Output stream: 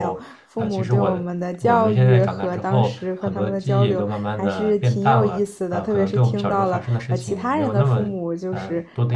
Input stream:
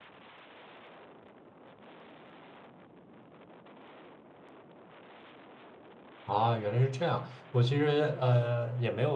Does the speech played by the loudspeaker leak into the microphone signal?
No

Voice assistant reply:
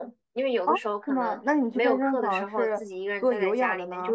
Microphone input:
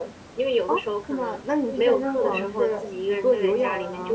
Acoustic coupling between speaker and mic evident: Yes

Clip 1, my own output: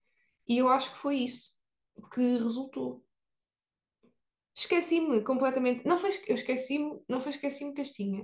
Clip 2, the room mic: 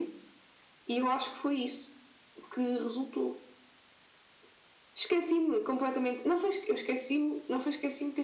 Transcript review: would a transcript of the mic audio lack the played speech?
No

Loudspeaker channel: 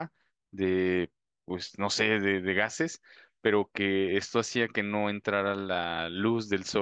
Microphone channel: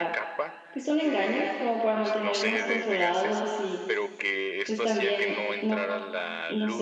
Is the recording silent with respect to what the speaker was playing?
No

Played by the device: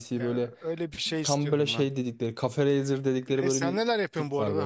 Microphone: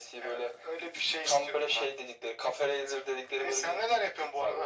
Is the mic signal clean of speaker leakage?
No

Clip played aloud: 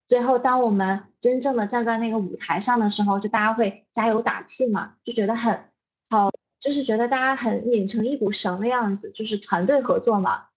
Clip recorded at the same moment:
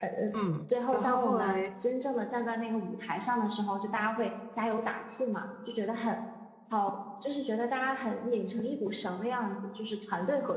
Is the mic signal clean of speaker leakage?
No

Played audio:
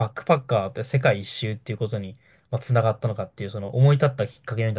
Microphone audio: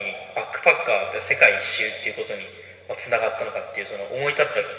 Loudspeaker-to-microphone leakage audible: Yes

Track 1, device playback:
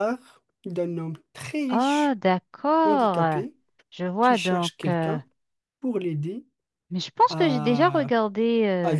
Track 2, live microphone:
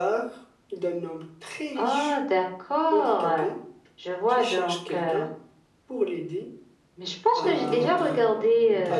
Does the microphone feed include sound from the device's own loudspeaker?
Yes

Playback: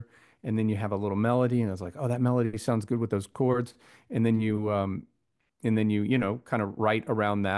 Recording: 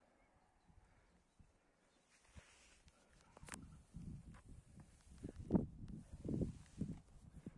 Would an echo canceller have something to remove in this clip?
No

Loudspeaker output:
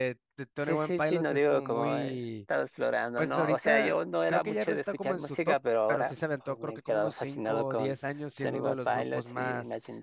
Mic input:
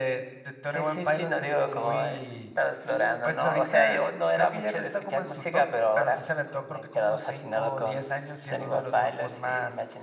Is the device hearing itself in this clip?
Yes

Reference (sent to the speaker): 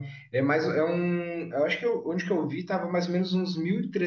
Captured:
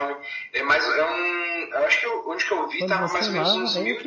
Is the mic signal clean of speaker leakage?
No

